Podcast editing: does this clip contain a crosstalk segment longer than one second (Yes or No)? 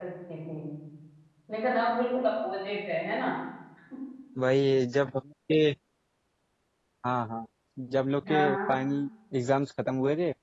No